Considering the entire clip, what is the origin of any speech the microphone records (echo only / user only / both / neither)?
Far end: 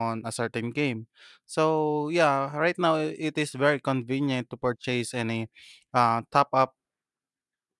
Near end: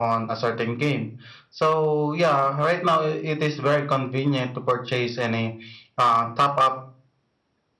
echo only